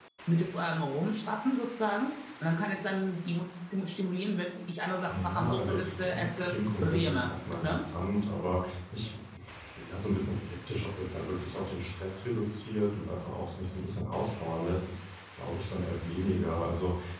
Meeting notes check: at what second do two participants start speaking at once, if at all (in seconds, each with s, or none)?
5.1 s